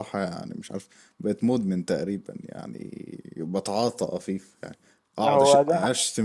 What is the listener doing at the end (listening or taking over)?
listening